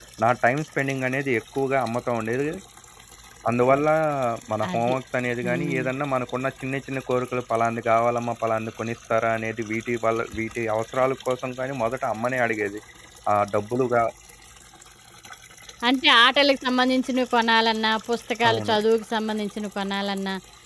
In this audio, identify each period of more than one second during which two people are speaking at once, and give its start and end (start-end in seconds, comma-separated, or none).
none